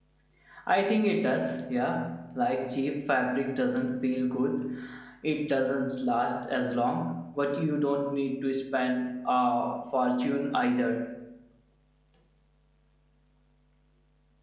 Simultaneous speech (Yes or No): No